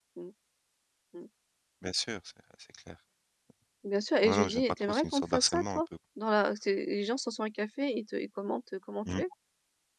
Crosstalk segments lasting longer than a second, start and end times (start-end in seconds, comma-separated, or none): 4.2-5.8